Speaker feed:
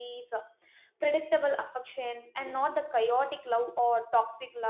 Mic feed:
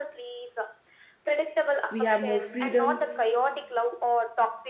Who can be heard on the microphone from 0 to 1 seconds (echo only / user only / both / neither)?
echo only